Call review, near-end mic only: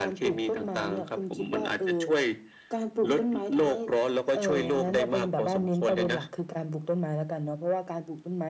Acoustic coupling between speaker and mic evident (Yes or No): Yes